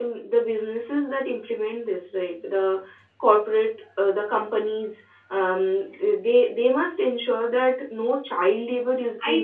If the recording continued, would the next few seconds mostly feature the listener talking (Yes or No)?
Yes